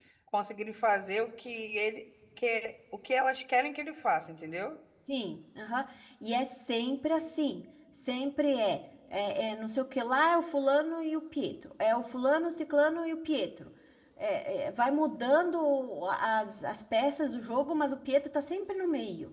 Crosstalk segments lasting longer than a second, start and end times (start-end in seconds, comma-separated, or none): none